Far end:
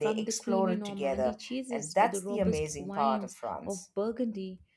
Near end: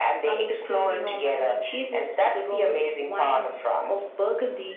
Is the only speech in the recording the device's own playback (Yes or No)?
Yes